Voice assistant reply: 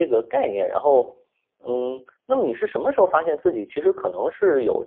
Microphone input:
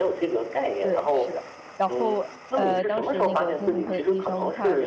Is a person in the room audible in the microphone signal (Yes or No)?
Yes